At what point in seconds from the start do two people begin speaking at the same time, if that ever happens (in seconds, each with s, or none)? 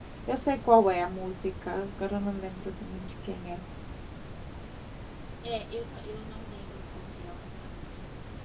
none